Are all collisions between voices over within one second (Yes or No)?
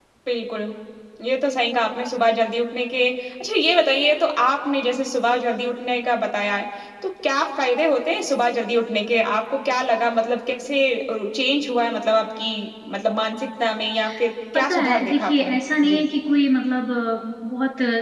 No